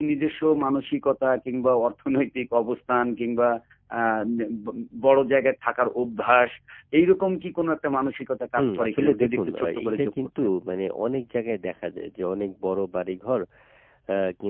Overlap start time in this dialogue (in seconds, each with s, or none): 8.6 s